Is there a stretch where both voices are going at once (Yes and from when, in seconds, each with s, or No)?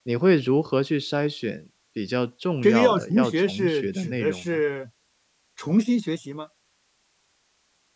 Yes, from 2.6 s